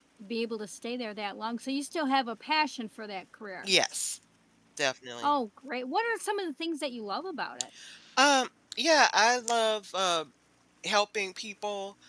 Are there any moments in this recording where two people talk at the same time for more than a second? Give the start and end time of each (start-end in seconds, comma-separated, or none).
none